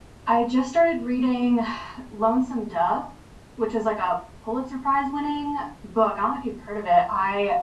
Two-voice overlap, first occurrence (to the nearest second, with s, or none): none